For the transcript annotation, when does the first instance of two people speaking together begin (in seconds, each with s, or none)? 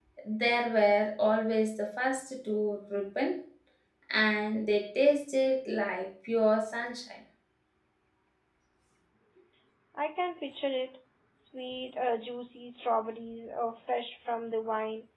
none